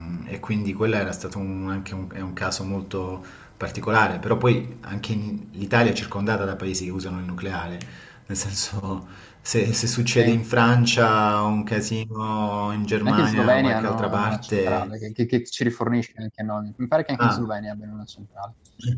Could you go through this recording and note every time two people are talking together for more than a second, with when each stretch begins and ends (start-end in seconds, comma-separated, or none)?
13.0-14.9